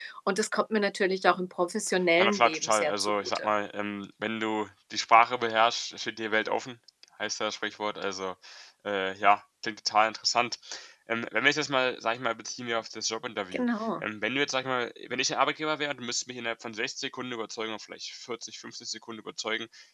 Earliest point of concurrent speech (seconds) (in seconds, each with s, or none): 2.2 s